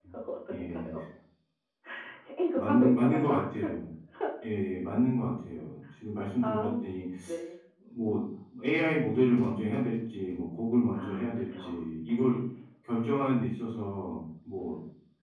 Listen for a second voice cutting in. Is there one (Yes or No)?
Yes